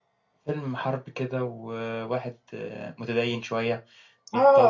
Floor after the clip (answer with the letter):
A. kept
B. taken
B